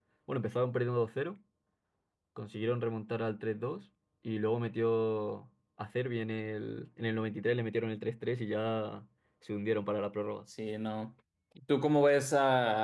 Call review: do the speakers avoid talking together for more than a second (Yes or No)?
Yes